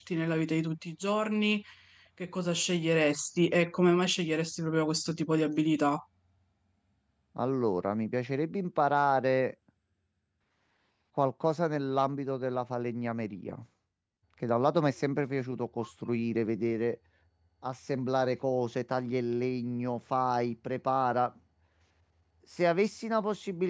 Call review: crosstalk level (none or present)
none